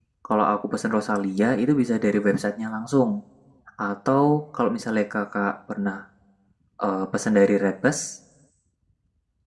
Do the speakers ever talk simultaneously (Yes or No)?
No